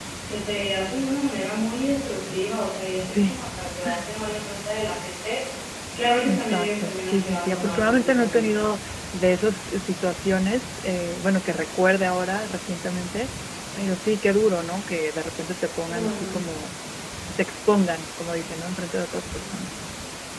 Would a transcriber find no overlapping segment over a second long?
No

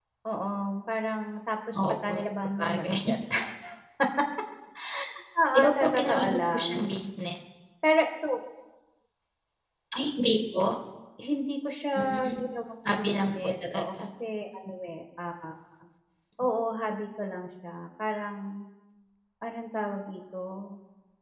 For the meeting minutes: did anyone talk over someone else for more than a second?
Yes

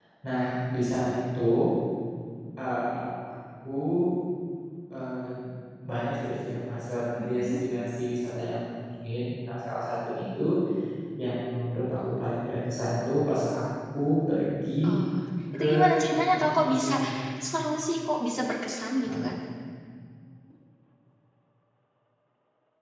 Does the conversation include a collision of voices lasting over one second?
Yes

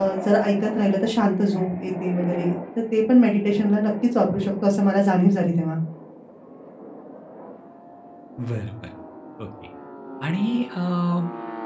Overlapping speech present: No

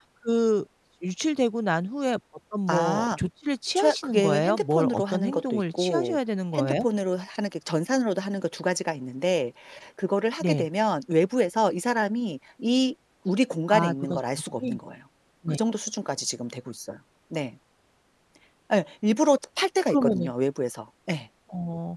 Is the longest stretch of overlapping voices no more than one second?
No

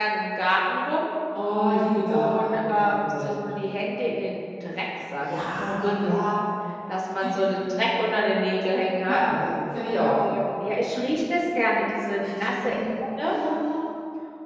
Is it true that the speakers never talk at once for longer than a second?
No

